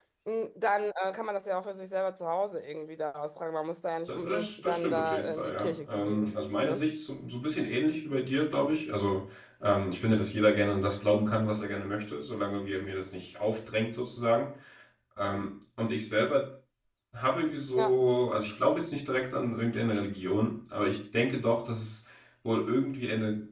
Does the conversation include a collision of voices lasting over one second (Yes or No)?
Yes